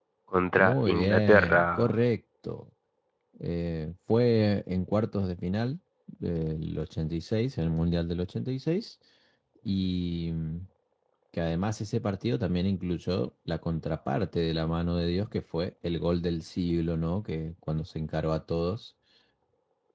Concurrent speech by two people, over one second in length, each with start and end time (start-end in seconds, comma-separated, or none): 0.6-1.9